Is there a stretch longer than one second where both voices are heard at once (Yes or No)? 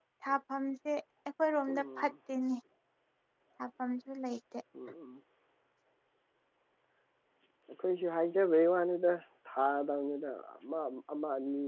No